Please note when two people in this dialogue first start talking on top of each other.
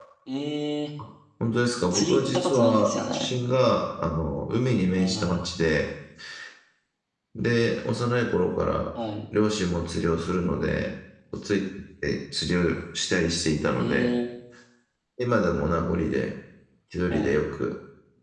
1.8 s

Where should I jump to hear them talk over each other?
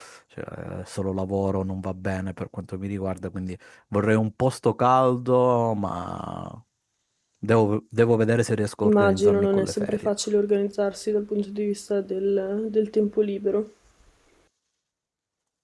8.8 s

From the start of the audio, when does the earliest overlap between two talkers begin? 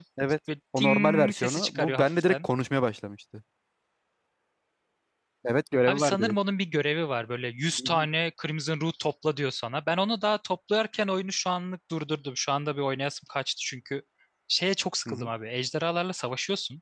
0.8 s

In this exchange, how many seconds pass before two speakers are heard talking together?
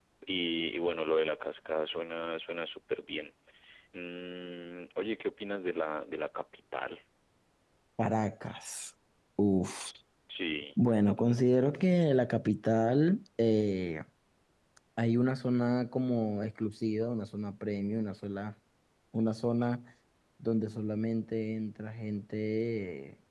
none

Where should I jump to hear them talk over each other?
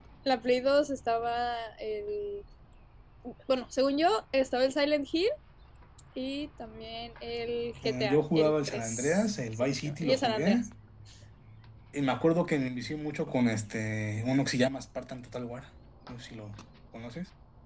7.8 s

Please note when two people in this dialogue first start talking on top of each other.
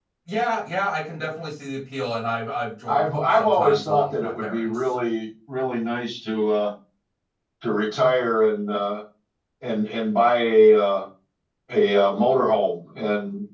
2.9 s

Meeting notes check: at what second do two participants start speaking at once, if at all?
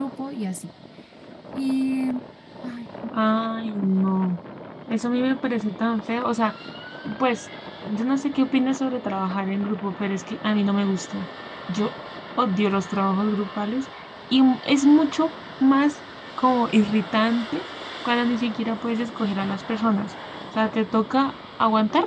none

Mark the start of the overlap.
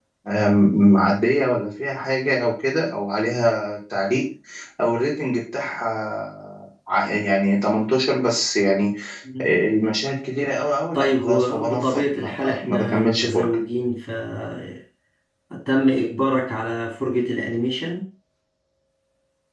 10.9 s

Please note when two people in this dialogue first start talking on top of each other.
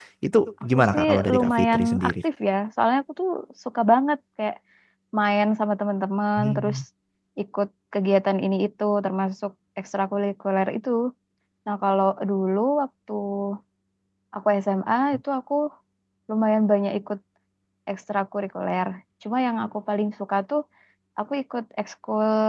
0.8 s

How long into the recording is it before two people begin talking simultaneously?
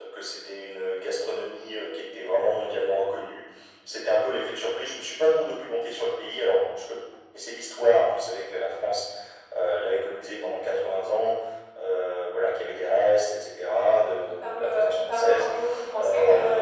14.3 s

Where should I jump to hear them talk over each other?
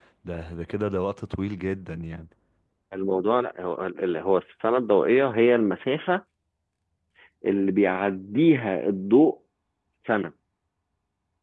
none

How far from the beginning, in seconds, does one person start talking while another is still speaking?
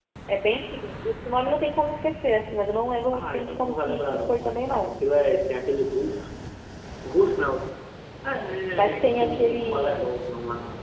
3.1 s

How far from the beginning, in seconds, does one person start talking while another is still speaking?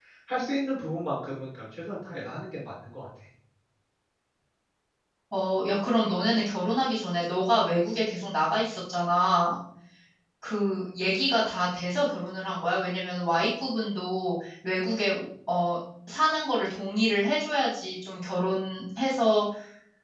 none

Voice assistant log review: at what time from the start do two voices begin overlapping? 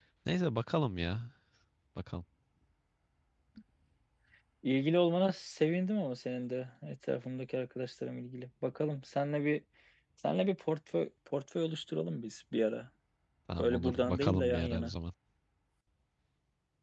13.6 s

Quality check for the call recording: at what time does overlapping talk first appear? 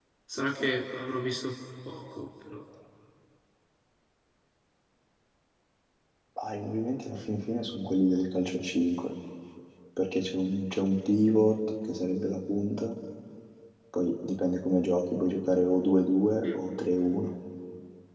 none

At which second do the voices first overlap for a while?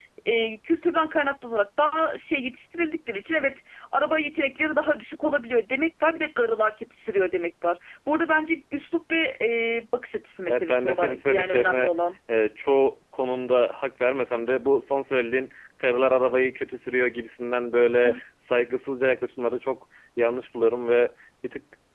10.5 s

